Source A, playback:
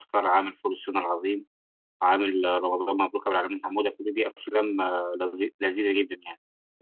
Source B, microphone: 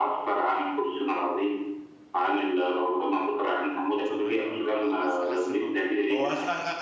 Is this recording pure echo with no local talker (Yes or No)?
No